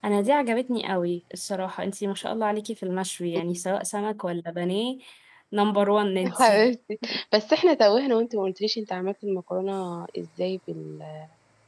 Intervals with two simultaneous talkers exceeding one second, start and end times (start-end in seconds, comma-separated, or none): none